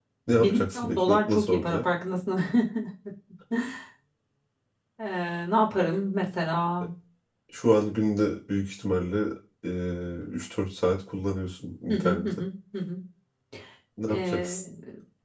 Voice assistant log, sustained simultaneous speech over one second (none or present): present